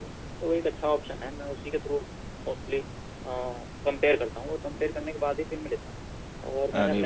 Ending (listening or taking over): listening